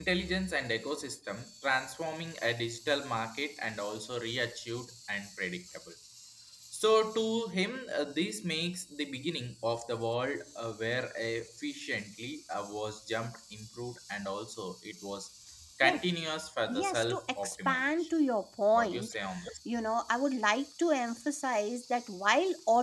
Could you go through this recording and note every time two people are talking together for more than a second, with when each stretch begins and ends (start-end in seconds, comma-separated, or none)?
16.7-18.1